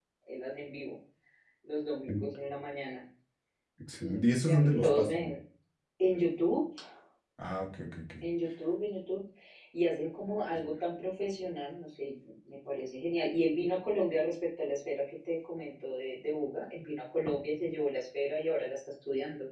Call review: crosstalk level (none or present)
present